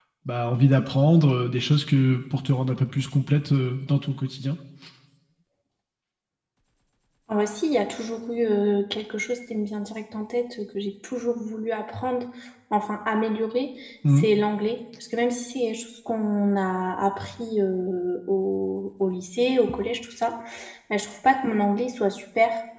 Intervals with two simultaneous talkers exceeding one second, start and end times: none

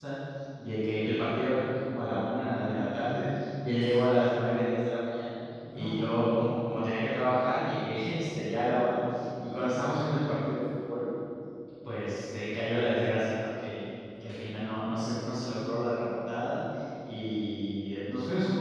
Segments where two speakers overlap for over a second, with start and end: 5.7-7.0

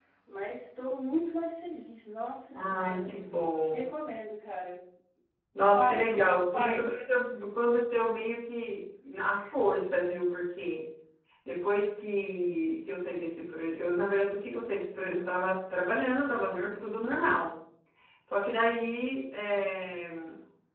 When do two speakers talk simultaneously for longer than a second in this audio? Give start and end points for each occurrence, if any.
2.5-4.0, 5.7-7.0

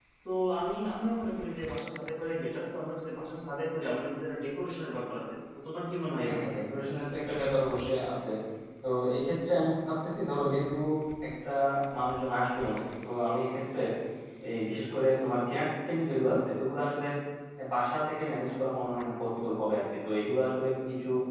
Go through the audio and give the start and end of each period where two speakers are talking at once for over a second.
none

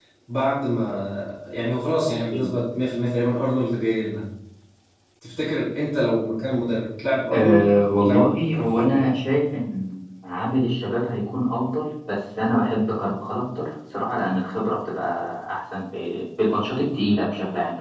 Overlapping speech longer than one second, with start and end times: 7.3-9.0

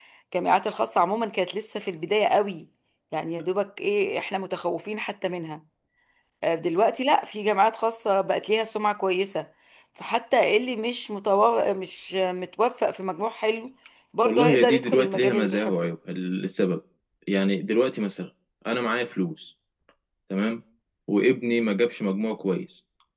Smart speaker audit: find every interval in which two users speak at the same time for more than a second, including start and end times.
14.2-15.7

